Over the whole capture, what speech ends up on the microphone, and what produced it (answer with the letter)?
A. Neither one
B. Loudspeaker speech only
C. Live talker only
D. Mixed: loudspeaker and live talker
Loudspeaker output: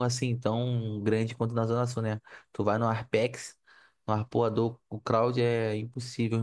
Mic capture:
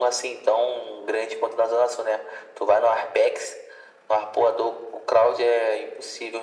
B